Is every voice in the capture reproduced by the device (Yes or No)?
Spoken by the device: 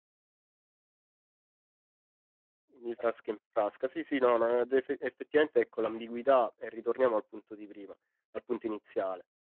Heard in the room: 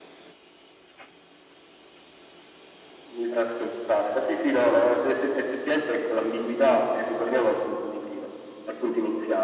Yes